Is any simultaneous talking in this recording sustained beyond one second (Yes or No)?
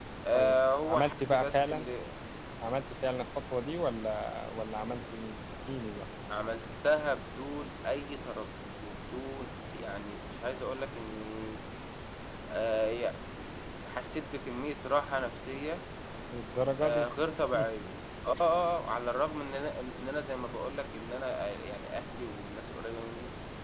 Yes